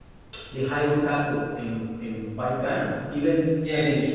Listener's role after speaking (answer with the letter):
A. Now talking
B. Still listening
A